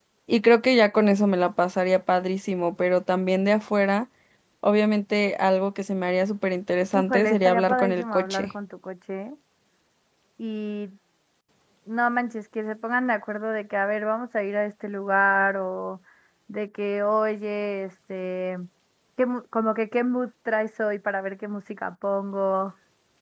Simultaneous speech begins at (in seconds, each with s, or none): 6.9 s